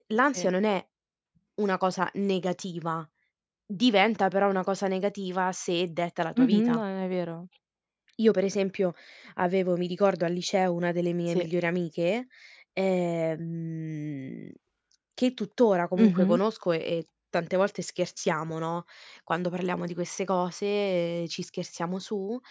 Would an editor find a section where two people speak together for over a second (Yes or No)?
No